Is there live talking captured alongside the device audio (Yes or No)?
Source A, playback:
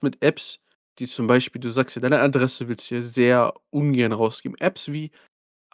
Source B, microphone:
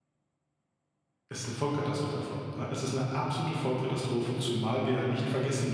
Yes